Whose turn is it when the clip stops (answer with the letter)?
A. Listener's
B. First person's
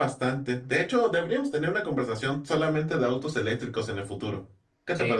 A